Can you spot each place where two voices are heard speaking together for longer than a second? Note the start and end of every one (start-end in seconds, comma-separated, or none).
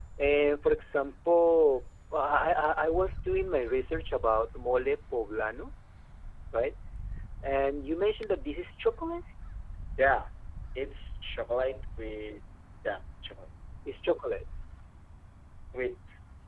none